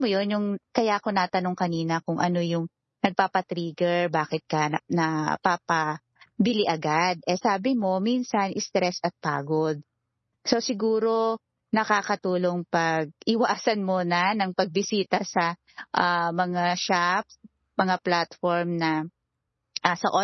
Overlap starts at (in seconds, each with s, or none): none